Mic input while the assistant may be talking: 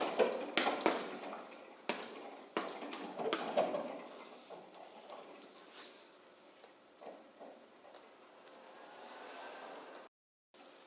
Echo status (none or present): none